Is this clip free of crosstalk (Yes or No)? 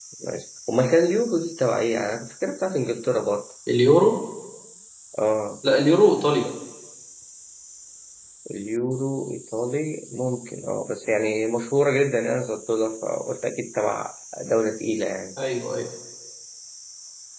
Yes